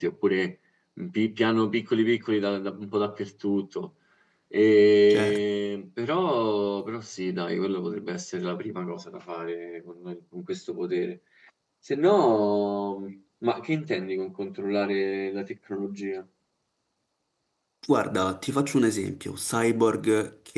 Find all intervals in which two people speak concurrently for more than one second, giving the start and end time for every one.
none

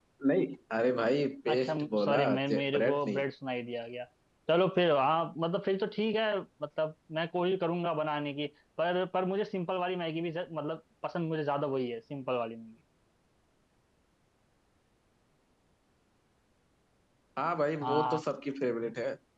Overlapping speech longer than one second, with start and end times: 1.5-3.2

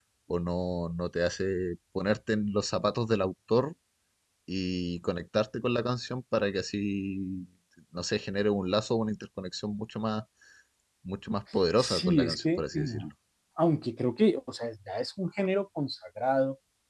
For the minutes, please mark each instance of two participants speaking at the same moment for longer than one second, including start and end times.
11.8-13.0

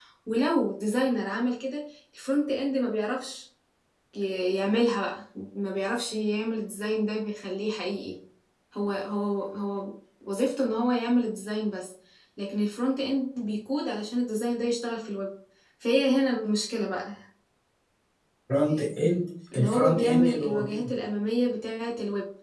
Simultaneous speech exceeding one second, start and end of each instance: 19.5-20.9

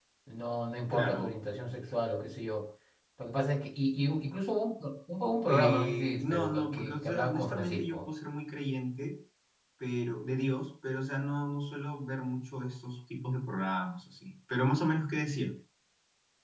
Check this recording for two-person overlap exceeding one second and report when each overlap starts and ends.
5.5-8.0

